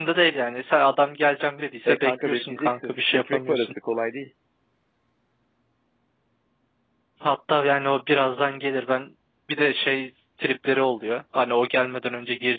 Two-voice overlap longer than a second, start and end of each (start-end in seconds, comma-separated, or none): 1.9-3.7